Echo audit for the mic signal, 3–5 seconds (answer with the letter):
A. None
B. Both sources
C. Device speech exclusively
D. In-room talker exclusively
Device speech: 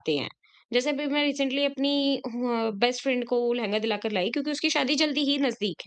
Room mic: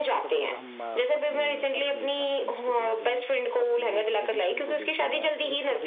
B